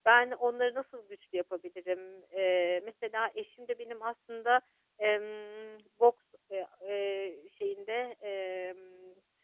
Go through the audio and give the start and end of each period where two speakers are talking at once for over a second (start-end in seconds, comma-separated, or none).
none